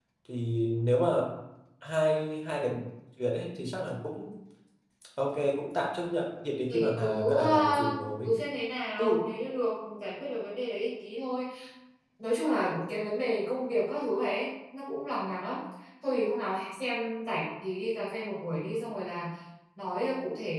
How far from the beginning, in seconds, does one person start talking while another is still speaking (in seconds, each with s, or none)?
6.7 s